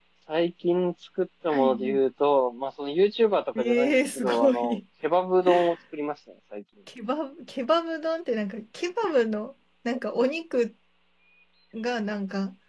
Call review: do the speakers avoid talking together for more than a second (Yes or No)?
No